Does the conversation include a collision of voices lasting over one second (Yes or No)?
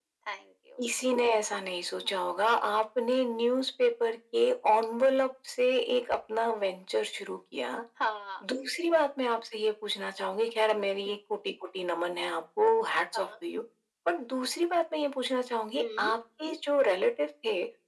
No